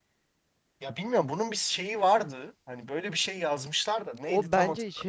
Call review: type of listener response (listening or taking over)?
taking over